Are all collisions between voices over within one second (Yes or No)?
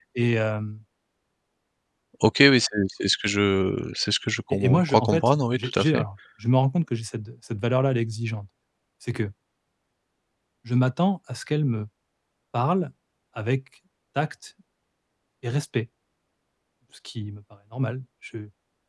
No